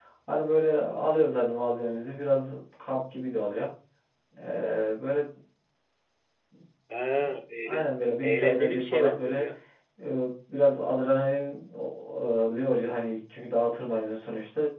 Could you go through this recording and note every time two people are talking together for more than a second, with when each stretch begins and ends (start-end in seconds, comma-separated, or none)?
8.2-9.4